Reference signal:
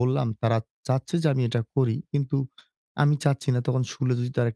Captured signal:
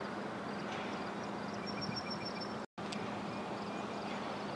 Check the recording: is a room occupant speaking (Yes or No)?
No